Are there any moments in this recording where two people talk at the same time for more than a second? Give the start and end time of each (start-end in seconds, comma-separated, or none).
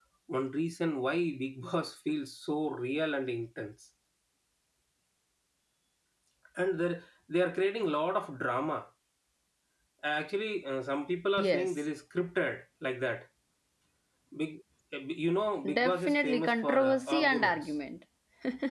15.7-17.6